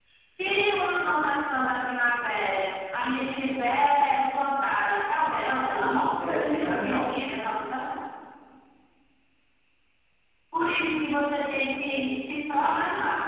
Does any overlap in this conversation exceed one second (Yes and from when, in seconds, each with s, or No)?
Yes, from 5.6 s